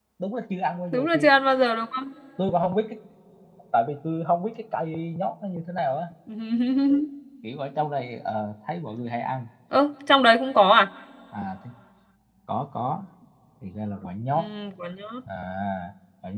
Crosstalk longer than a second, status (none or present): none